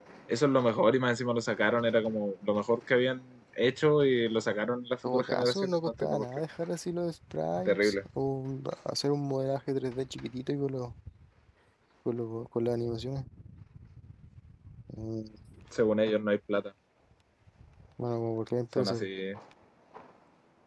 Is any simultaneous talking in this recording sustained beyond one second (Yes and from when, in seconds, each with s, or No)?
Yes, from 5.0 s